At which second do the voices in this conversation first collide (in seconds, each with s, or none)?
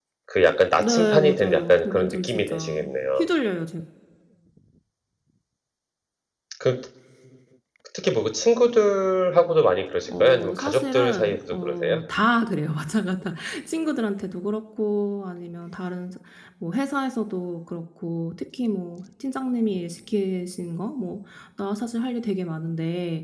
0.8 s